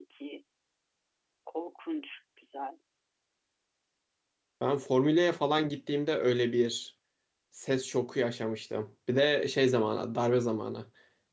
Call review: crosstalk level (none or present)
none